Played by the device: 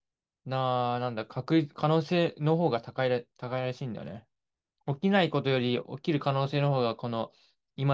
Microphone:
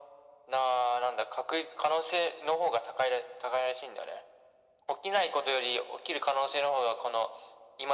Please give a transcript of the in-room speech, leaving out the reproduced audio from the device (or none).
none